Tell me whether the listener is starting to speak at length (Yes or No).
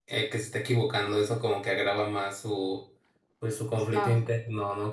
No